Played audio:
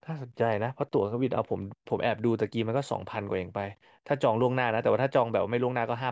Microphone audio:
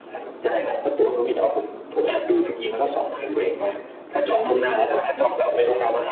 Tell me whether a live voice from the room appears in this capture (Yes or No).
No